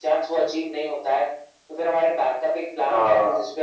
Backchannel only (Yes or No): Yes